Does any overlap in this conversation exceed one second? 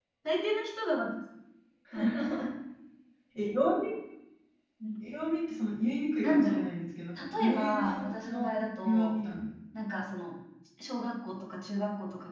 Yes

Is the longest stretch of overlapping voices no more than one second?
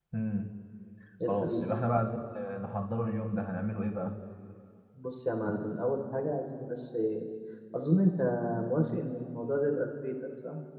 Yes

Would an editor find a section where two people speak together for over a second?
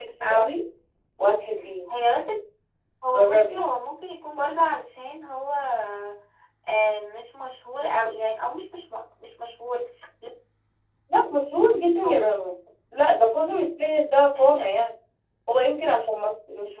No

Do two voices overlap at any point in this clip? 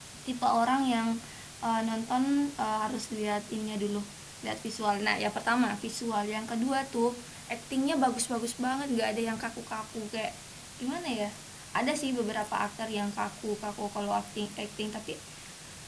No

